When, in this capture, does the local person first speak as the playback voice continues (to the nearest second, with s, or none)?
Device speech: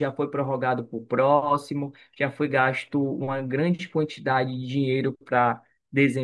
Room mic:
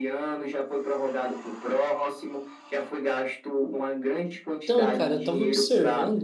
5 s